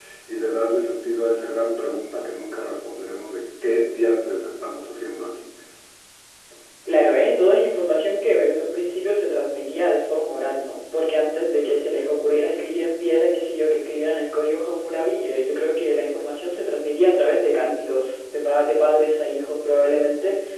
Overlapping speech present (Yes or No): No